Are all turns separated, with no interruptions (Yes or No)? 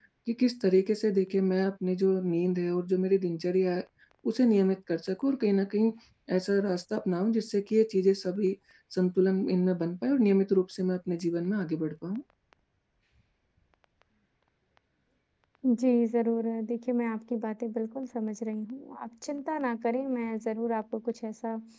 Yes